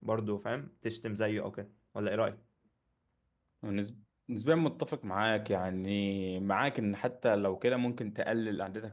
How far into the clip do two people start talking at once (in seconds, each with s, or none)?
none